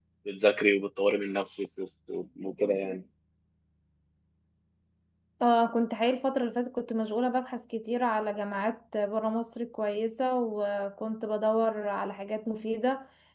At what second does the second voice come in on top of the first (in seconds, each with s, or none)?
none